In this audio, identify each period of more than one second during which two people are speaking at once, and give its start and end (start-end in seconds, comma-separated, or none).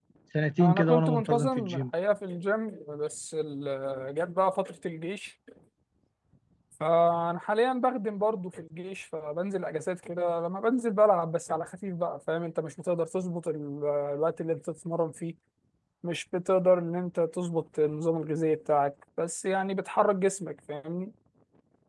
0.6-1.8